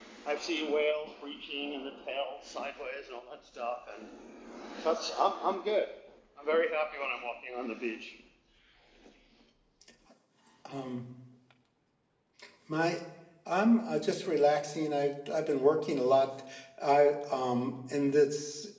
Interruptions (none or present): none